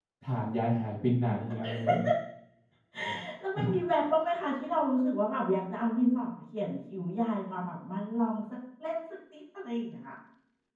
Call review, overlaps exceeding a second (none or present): none